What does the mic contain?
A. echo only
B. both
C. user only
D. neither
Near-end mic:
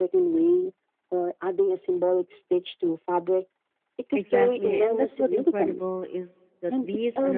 B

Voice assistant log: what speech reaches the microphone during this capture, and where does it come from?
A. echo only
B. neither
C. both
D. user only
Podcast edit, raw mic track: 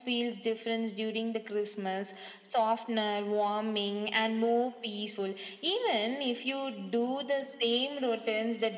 A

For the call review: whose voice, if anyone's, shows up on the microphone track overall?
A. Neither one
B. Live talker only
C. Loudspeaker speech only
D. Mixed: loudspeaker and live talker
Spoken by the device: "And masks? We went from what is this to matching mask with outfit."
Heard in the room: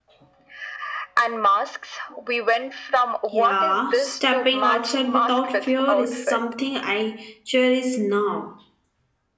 D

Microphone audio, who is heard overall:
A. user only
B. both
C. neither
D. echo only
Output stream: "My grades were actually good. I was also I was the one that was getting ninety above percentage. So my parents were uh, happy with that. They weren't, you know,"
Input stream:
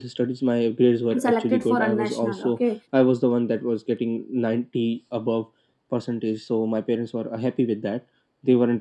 B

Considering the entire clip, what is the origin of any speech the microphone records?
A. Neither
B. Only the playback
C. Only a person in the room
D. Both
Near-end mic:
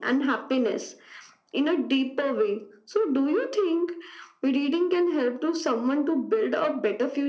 B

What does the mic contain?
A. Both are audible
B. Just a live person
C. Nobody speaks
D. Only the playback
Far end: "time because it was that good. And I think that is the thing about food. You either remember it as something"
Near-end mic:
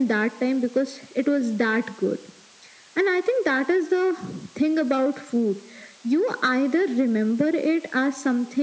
D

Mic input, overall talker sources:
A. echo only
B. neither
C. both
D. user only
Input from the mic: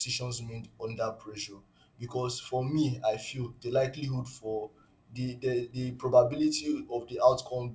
D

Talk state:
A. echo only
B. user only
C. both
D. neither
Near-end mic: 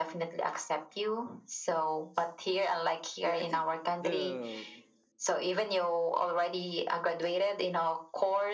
C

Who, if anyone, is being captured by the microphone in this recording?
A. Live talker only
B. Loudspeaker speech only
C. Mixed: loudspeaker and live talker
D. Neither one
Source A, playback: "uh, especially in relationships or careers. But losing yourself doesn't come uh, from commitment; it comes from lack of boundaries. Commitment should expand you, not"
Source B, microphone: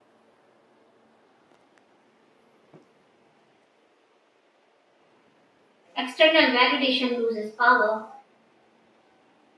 A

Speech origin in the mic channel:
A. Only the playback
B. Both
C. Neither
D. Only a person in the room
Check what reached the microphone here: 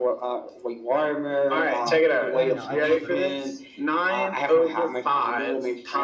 B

